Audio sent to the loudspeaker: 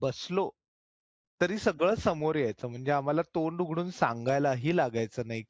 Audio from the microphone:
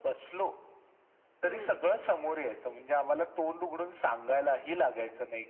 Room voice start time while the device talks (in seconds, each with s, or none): 1.4 s